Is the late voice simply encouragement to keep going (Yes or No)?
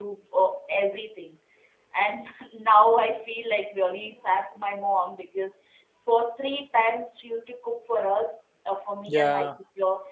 Yes